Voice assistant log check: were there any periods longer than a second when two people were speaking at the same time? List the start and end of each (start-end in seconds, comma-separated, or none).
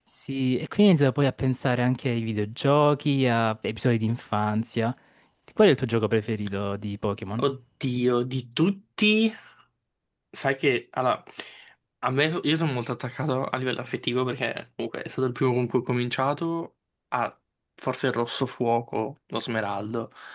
none